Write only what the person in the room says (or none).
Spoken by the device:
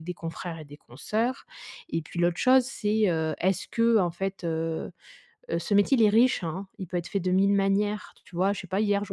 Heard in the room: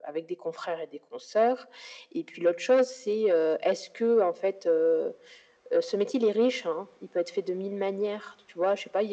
none